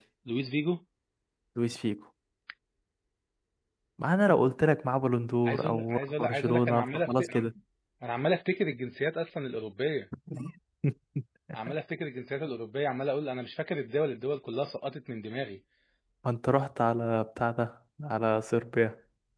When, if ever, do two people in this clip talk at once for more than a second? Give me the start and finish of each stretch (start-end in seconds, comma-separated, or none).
5.5-7.4